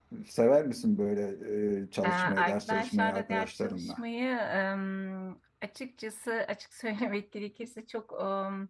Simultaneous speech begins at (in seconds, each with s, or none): 2.0 s